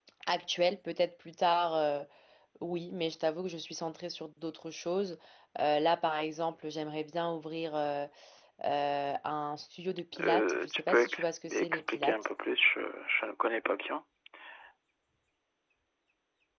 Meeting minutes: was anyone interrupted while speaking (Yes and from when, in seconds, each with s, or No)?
Yes, from 10.1 s